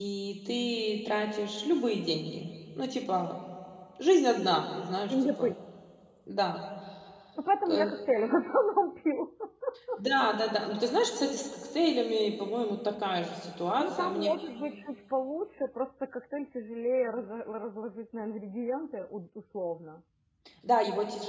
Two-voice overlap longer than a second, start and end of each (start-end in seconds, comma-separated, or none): none